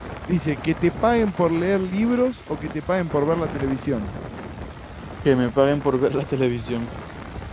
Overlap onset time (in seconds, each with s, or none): none